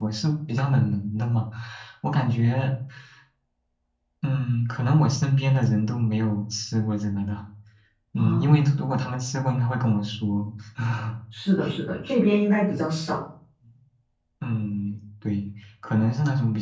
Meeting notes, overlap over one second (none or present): none